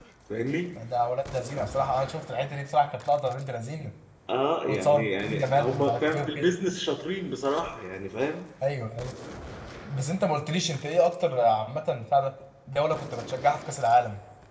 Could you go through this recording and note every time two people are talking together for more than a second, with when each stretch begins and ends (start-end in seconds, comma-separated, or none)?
4.6-6.5